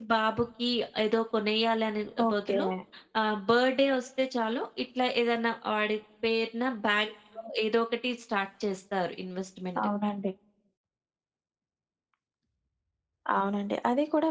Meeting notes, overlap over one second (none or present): none